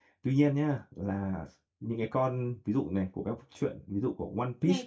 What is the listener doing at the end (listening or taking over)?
taking over